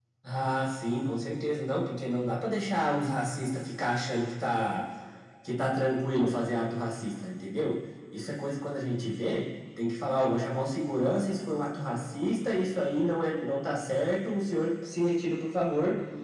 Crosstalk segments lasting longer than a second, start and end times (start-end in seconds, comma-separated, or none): none